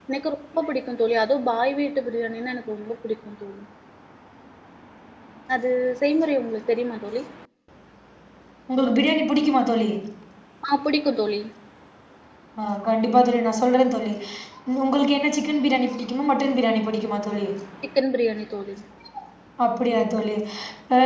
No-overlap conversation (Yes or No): Yes